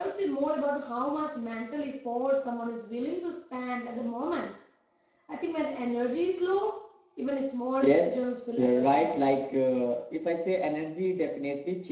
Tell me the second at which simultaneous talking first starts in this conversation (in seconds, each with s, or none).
7.8 s